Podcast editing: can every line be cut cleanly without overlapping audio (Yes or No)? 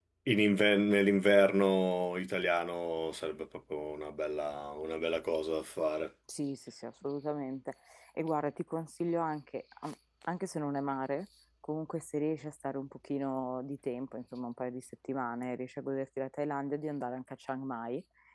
Yes